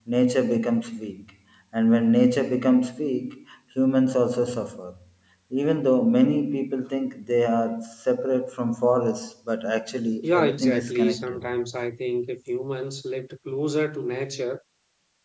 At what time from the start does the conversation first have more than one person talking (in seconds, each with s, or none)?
10.2 s